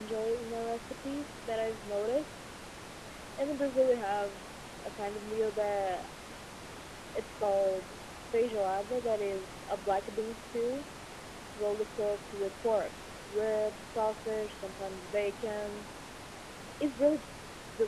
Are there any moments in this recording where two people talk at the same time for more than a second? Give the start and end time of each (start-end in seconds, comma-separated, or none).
none